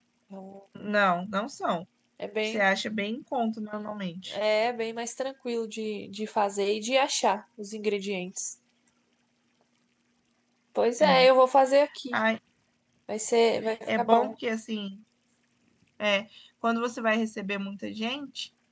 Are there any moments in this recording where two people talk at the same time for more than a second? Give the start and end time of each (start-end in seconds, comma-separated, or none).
none